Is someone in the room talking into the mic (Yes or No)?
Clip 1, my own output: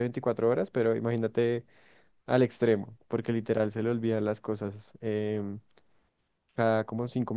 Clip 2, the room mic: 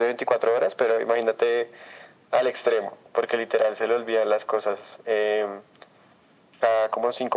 No